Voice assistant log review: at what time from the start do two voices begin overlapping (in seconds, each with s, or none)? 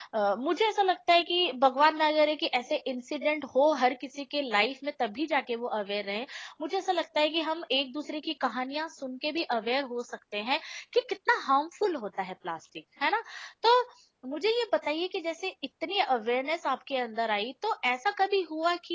none